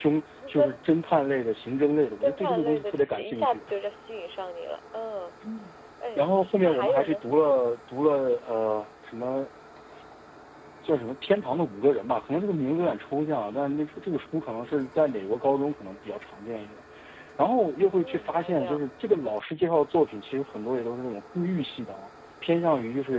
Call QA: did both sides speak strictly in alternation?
No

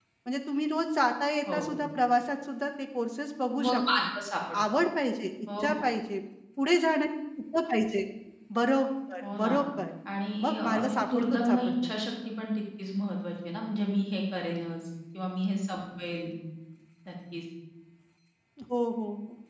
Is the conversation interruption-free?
No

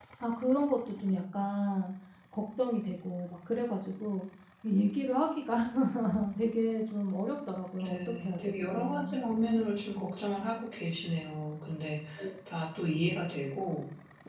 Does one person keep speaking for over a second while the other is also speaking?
Yes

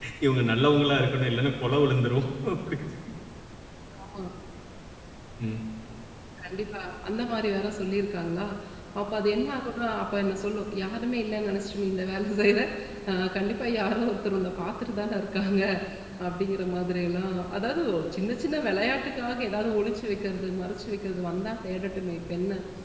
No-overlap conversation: Yes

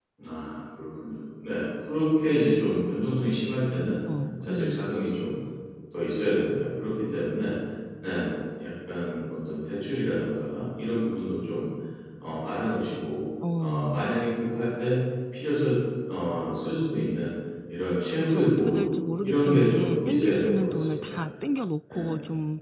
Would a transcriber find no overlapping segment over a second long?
No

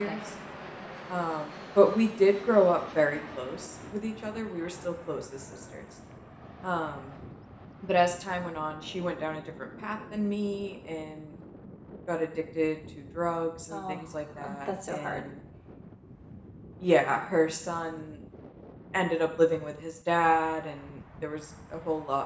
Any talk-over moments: Yes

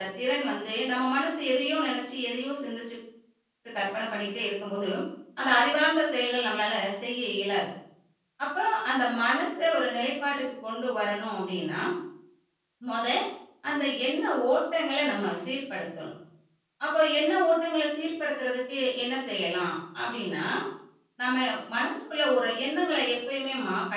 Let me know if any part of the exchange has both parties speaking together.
No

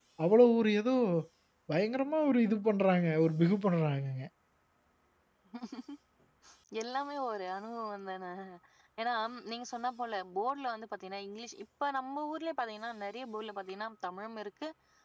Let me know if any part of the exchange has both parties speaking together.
No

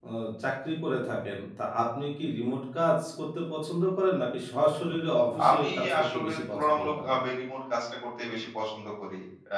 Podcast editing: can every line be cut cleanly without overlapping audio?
No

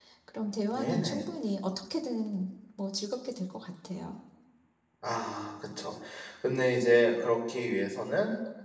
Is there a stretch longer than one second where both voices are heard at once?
No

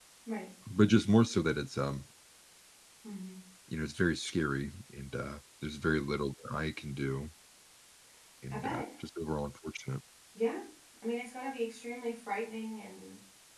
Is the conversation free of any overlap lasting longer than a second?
Yes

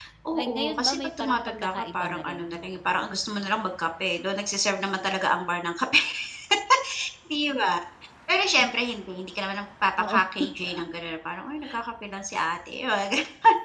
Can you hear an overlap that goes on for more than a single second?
Yes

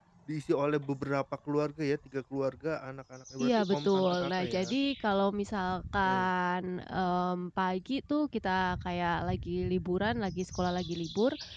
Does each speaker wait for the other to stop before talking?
No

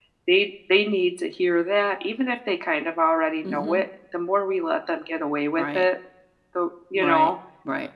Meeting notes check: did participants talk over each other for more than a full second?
No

